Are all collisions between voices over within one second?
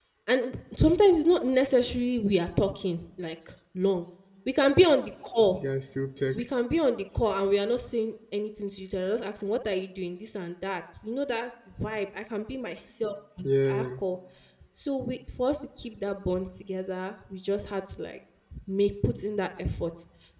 Yes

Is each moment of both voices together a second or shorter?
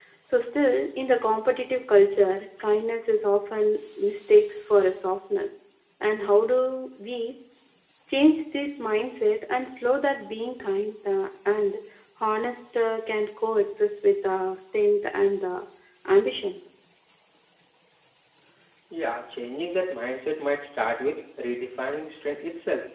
Yes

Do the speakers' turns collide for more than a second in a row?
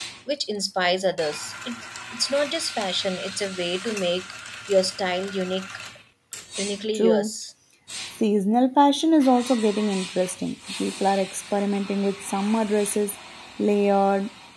No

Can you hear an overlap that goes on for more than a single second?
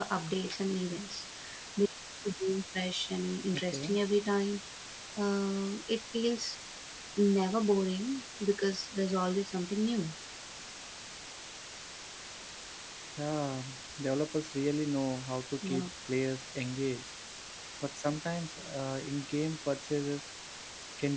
No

